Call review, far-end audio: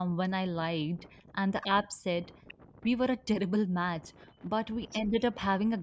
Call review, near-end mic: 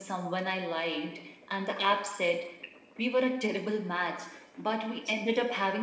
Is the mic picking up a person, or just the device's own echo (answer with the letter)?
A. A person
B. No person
B